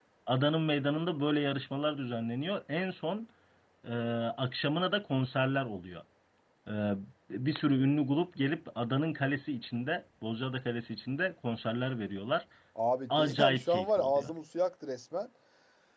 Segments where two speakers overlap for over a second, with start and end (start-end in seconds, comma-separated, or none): 13.1-14.3